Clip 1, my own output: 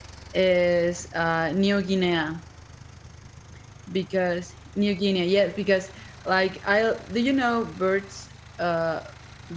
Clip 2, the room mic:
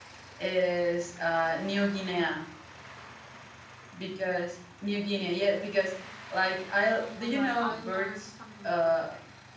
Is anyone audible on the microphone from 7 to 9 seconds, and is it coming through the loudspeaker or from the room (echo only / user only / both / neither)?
both